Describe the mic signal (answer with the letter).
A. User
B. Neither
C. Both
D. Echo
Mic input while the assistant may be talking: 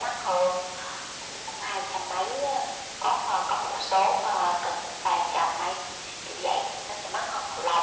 D